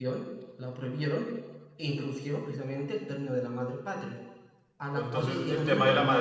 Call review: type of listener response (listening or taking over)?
taking over